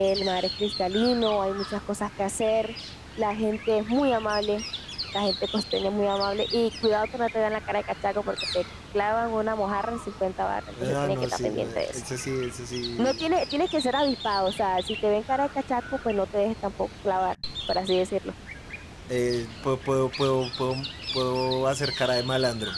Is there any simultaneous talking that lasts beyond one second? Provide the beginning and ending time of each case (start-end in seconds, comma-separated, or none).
10.8-12.0